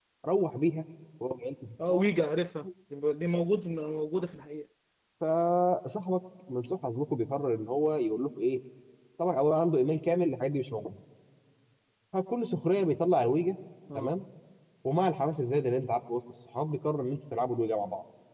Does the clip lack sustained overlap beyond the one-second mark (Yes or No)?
Yes